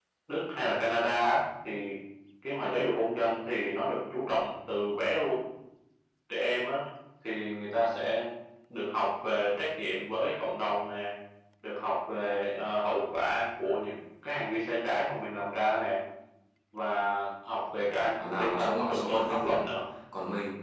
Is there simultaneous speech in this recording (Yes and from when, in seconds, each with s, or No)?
Yes, from 18.2 s